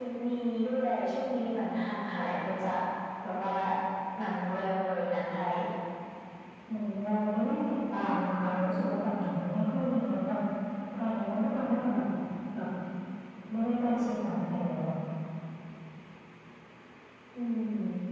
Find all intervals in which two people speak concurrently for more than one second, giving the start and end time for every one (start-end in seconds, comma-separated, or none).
none